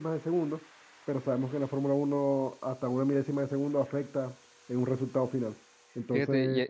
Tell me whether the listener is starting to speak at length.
Yes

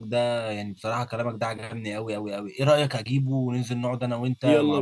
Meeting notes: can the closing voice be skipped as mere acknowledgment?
No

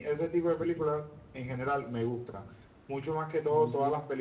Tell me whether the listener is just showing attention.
Yes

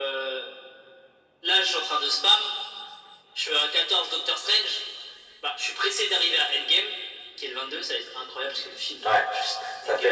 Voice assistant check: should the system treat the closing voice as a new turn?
Yes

